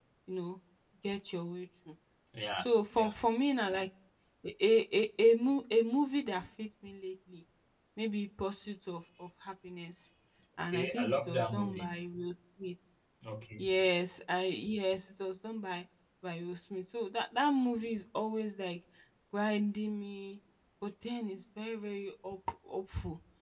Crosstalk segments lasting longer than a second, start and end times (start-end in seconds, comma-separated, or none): 10.7-11.9